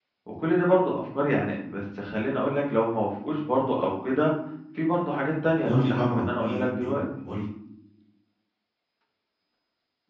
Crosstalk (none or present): present